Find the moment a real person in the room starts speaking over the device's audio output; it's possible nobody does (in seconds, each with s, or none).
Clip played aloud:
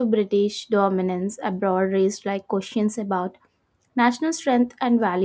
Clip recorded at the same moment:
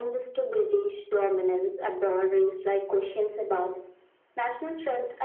none